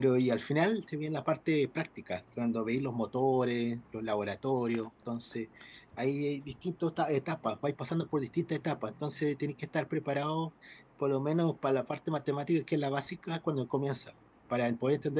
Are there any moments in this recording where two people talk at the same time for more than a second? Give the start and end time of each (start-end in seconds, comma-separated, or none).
none